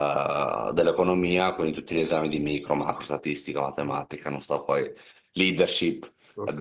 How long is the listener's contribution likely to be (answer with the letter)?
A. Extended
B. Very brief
A